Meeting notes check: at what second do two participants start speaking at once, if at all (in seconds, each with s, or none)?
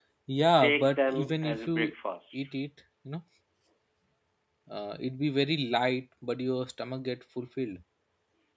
0.6 s